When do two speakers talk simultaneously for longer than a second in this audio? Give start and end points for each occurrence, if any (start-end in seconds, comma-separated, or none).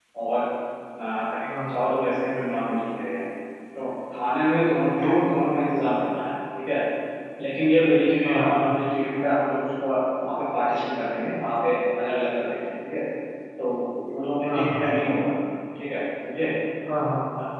none